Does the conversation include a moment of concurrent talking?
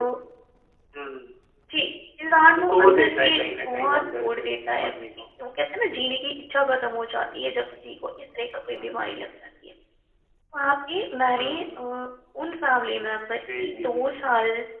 Yes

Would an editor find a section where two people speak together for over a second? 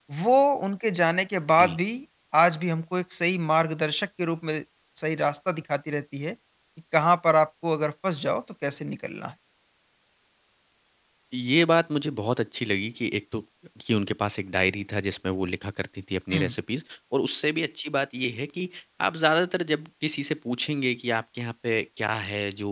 No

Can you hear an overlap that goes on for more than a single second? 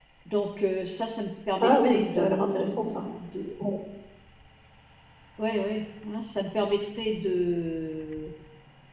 Yes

